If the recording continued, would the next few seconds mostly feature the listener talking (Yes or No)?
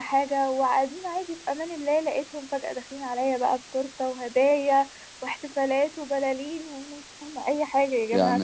Yes